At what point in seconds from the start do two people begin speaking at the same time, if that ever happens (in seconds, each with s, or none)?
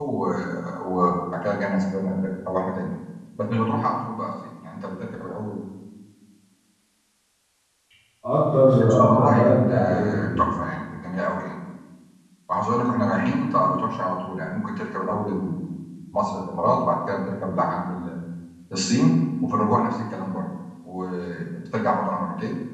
8.8 s